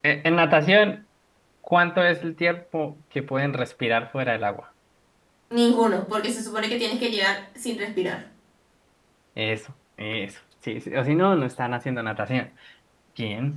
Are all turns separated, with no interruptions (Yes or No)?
Yes